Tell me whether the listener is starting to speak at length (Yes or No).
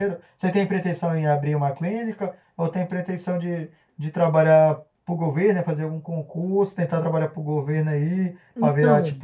No